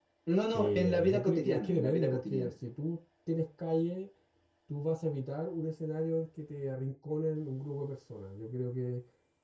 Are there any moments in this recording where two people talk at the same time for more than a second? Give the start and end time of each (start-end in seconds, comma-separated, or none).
0.5-2.5